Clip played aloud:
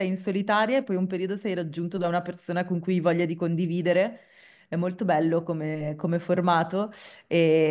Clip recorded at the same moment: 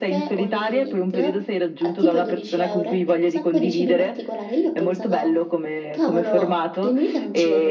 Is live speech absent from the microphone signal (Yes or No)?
No